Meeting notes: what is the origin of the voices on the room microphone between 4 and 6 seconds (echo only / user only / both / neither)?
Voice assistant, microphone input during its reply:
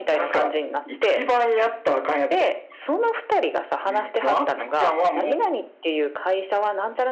echo only